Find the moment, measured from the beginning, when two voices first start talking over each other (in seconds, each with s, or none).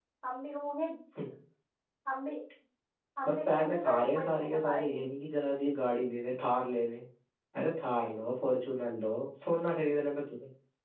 3.2 s